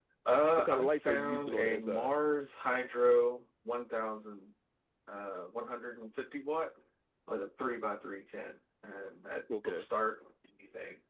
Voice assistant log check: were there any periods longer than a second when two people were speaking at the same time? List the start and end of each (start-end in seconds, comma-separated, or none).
0.6-2.1